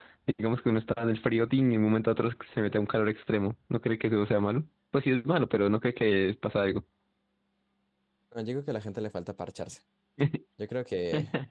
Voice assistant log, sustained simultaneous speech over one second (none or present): none